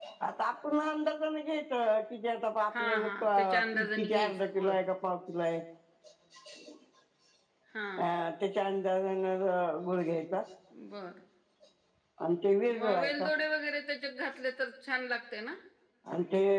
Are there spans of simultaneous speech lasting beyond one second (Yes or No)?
Yes